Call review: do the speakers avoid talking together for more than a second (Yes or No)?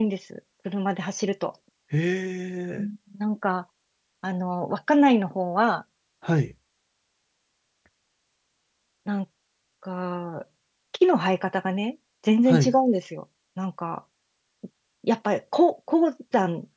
Yes